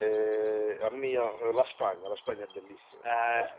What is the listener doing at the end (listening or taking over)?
taking over